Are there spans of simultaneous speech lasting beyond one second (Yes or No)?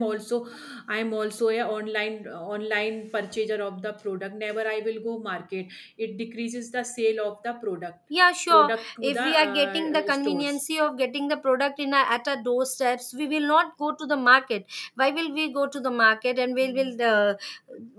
Yes